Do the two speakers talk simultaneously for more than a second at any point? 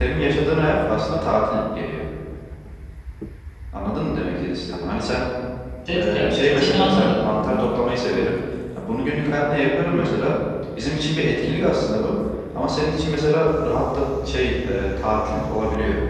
Yes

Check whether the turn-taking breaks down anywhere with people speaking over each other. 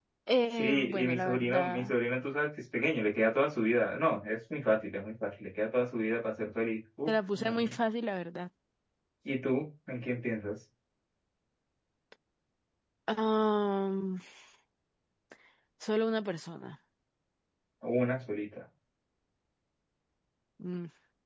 Yes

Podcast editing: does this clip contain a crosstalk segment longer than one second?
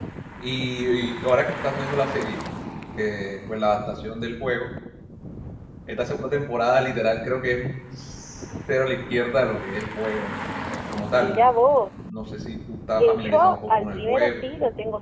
Yes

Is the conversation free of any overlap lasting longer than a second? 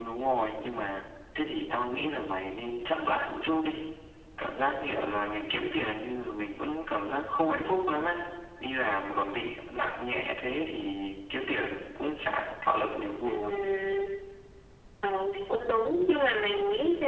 Yes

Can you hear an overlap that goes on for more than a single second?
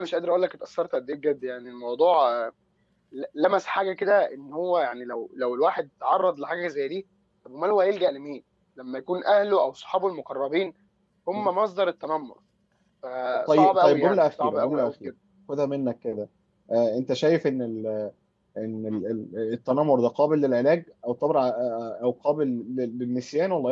Yes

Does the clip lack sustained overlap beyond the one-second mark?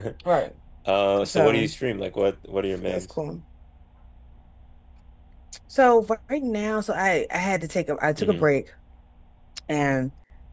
Yes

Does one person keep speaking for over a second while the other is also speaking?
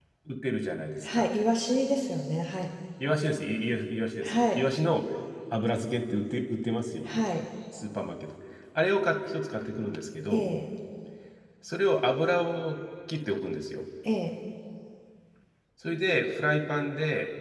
No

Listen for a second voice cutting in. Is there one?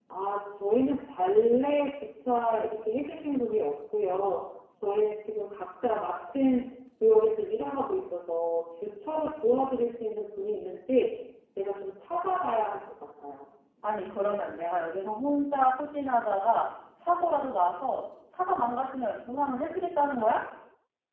No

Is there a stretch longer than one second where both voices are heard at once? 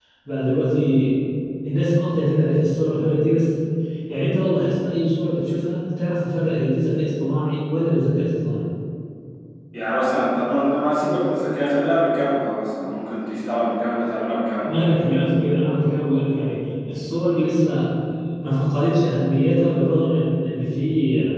No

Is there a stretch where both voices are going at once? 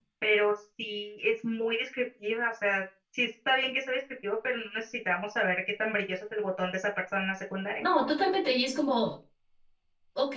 No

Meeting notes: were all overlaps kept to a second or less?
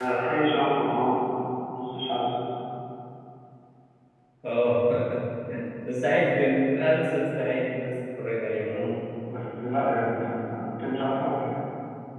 Yes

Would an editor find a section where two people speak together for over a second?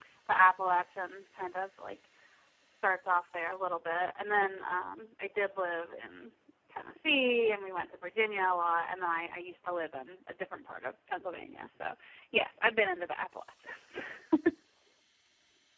No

